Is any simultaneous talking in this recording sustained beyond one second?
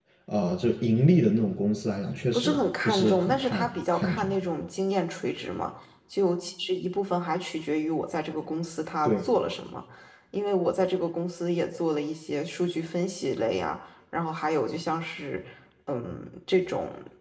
Yes, from 2.3 s

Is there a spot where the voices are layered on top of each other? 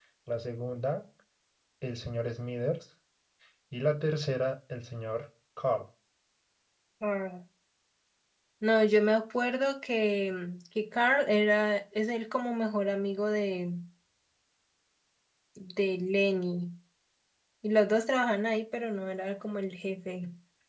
No

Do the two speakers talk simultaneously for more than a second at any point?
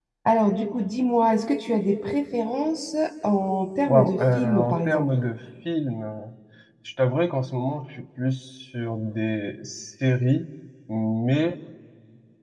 Yes, from 3.9 s

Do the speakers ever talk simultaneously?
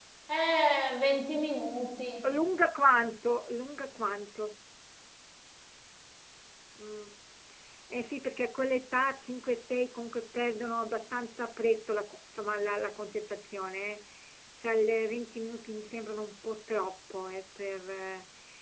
No

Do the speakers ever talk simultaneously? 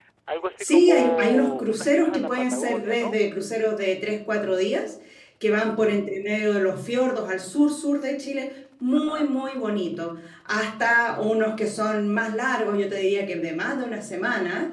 Yes, from 0.6 s

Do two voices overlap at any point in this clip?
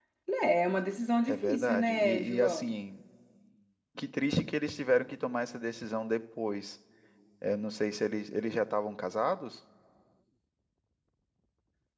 Yes, from 1.3 s

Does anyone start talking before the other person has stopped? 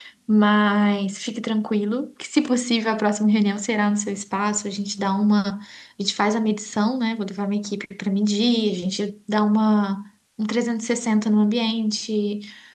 No

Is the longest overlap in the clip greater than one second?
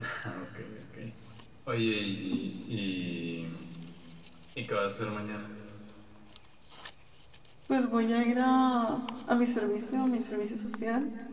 No

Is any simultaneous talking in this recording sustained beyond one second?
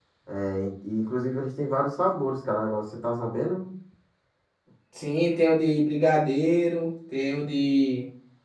No

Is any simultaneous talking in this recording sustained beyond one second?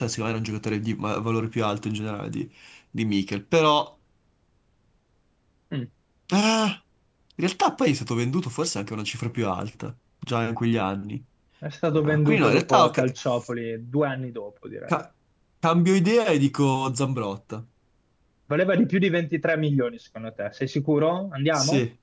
Yes, from 11.9 s

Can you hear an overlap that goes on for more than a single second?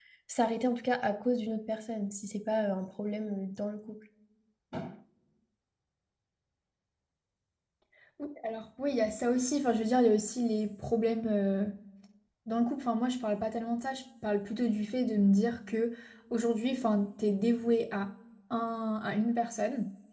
No

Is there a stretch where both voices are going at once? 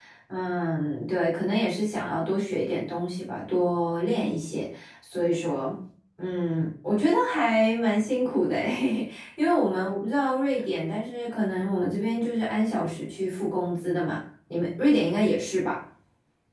No

